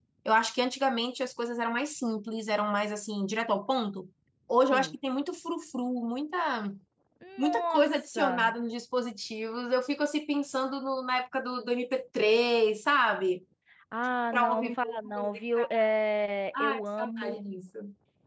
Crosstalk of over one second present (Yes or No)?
Yes